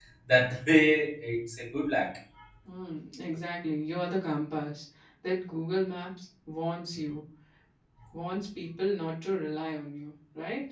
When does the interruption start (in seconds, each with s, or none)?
none